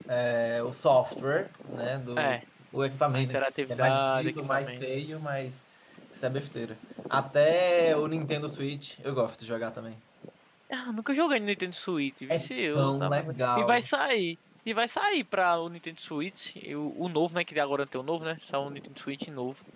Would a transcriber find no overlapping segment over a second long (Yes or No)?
No